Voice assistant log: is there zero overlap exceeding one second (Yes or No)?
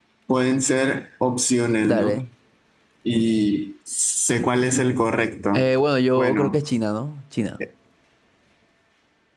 Yes